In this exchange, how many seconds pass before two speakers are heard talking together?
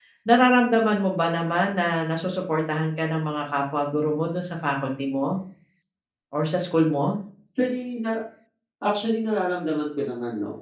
none

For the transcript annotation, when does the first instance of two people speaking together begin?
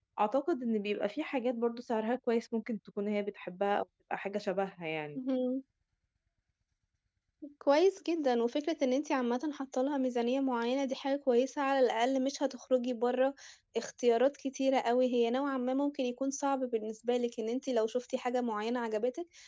none

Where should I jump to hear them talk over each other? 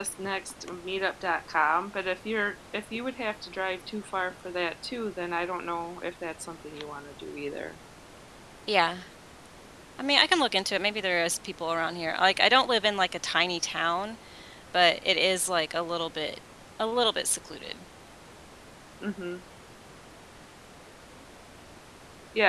none

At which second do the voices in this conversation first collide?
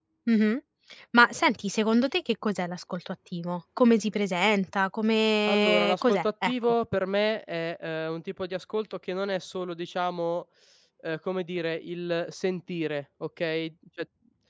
5 s

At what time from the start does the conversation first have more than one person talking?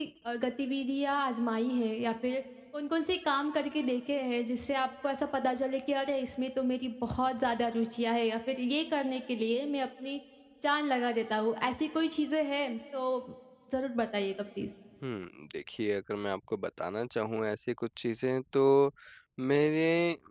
none

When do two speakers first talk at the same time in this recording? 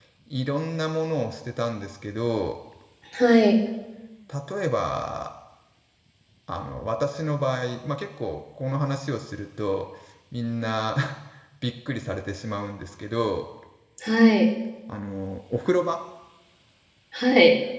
none

